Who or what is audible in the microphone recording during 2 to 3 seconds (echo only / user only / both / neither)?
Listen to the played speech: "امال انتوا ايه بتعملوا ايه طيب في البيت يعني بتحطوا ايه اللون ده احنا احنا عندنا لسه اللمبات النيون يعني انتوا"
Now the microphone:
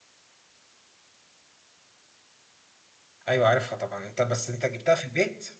neither